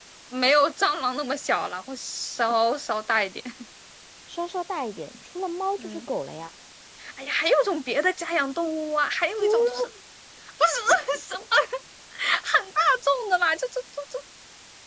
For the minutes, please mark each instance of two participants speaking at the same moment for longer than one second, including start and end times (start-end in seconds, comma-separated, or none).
none